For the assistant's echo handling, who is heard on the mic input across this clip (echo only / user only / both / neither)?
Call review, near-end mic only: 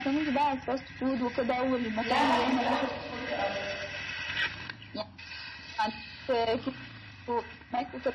both